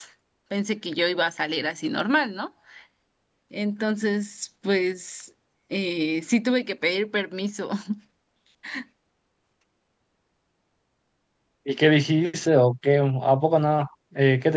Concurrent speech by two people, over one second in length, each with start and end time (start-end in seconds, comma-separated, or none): none